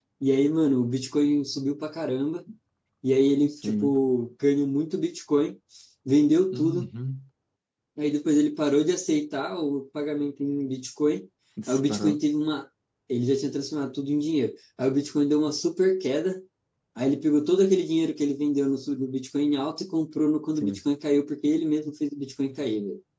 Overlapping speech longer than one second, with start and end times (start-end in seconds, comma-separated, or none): none